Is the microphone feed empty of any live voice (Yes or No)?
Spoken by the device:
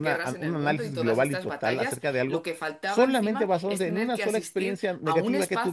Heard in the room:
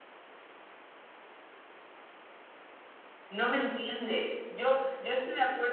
No